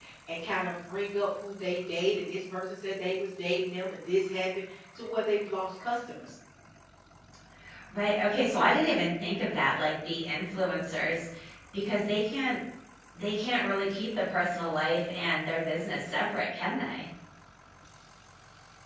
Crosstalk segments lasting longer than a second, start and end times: none

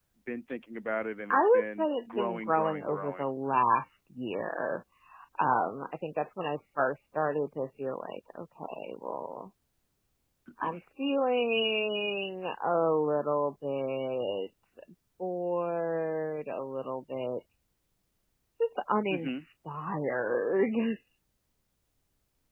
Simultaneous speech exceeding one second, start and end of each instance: 1.3-3.2

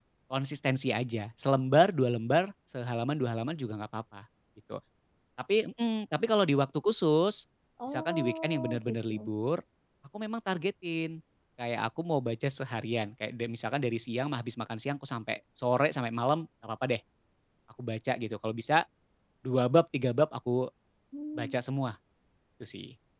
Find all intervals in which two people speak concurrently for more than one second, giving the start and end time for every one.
7.9-9.3

